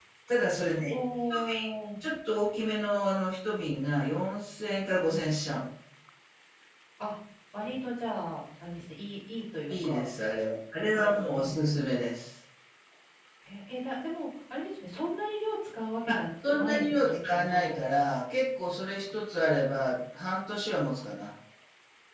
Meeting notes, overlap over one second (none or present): present